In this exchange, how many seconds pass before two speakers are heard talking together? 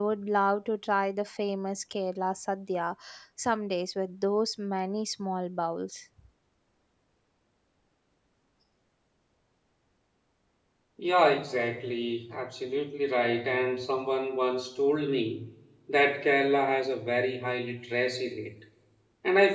none

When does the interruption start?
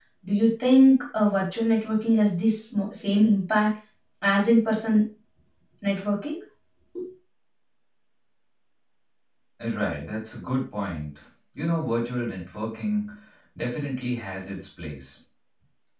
none

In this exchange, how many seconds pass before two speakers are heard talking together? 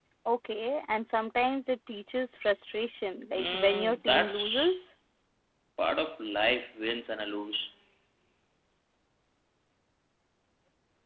3.3 s

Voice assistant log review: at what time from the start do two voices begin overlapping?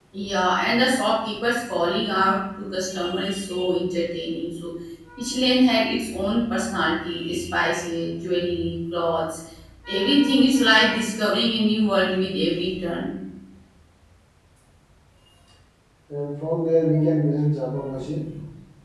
none

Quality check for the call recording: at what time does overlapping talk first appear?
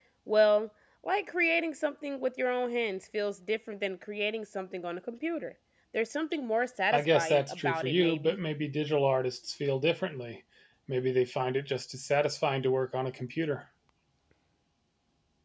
6.9 s

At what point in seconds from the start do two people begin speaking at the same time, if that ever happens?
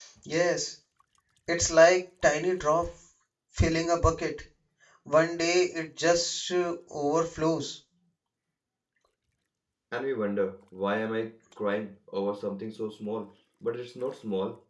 none

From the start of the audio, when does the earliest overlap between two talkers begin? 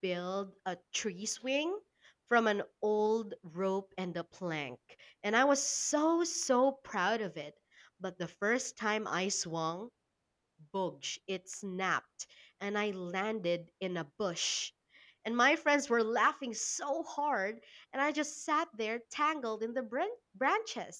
none

